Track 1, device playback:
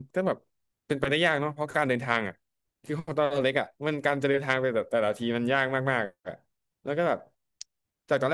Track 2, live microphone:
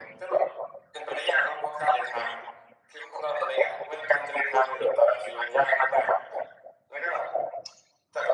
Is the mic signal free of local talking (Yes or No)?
Yes